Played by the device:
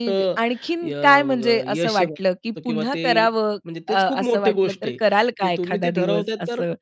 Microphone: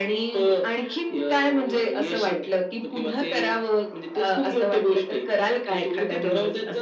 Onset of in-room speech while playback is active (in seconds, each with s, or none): none